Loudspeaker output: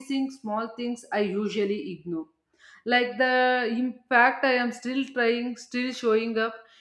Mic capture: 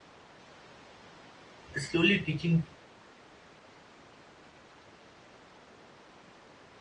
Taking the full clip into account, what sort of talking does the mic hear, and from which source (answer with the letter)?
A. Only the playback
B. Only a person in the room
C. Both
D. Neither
B